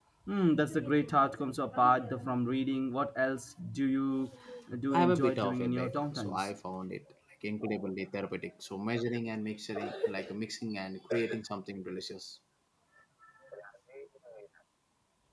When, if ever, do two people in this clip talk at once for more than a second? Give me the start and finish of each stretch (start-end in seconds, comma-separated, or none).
4.9-6.6